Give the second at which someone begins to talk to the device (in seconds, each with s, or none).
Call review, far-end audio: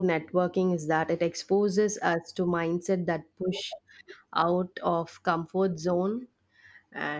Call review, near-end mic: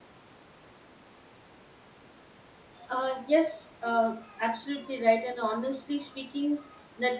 2.9 s